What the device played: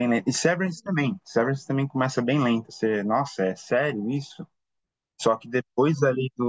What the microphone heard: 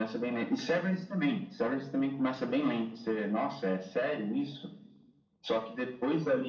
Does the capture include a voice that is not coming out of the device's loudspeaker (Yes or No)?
No